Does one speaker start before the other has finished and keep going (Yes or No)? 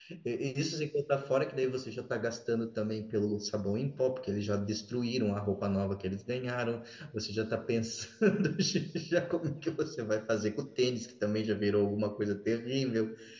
No